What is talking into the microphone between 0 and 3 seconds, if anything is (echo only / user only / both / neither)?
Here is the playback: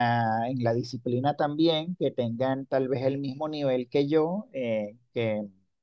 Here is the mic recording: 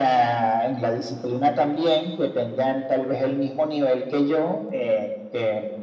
echo only